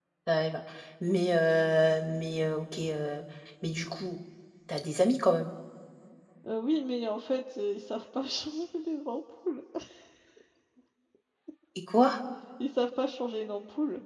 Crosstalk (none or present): none